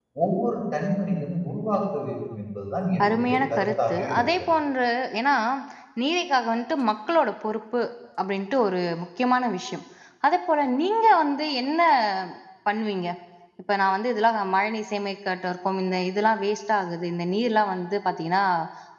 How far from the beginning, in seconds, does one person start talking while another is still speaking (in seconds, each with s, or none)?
3.0 s